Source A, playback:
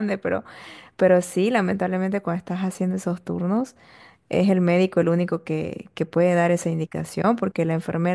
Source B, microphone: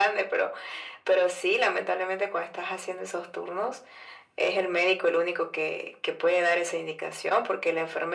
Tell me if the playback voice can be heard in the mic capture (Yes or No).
Yes